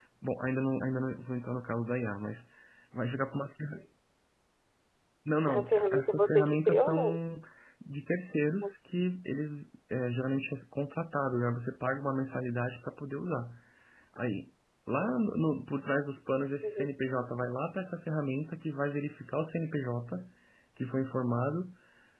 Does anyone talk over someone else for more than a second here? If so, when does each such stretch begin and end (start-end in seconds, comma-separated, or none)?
5.6-7.2